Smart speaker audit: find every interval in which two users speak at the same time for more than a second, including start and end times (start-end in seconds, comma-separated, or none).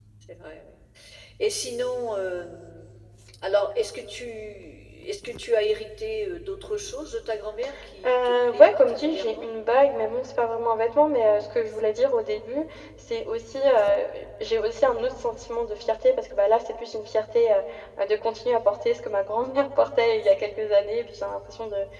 8.1-9.5